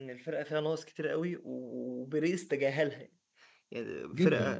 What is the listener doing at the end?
listening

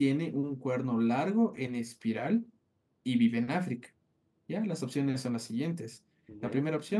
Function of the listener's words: listening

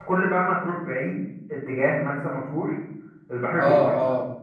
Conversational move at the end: taking over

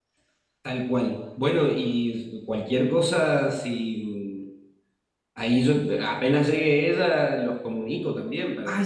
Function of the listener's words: taking over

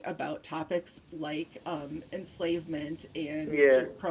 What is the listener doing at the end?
listening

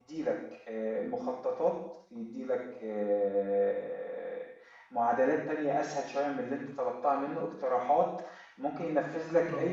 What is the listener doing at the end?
listening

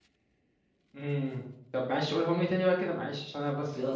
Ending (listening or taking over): taking over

